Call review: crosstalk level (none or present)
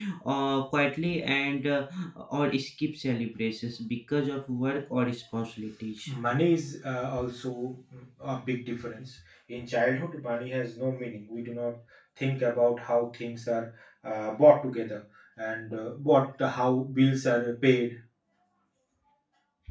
none